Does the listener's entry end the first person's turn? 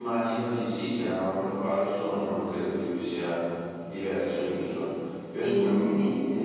No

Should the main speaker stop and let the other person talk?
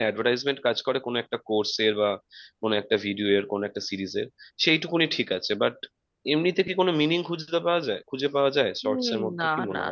Yes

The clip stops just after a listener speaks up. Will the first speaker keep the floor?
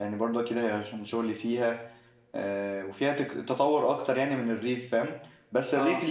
Yes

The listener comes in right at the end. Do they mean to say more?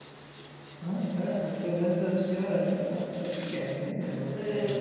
Yes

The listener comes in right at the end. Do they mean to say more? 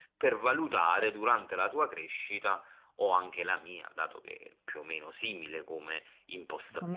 No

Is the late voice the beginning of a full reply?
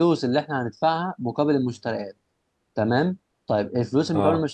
No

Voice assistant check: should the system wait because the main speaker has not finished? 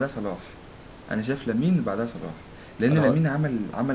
Yes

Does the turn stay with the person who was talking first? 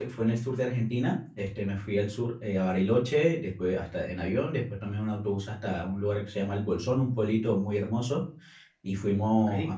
Yes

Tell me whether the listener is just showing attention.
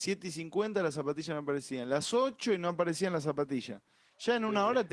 Yes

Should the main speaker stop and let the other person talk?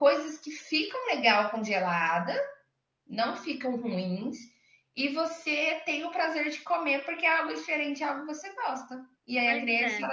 No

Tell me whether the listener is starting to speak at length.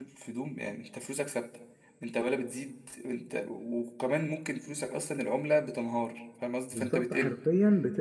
Yes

